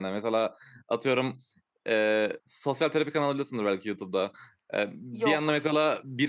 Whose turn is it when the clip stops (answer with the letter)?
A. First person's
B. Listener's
A